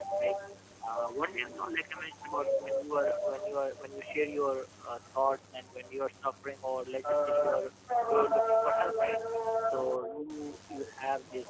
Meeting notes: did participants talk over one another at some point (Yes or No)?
Yes